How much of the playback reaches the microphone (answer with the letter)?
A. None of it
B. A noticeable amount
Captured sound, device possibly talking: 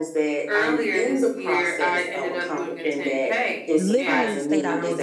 B